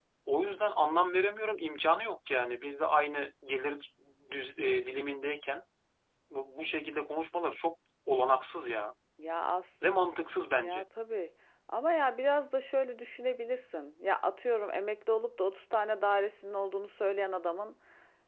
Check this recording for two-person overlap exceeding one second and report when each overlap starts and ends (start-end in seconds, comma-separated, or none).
none